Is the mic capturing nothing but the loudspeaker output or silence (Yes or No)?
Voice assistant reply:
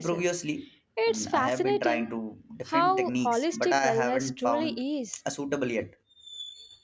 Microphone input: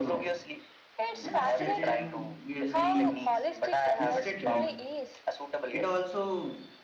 No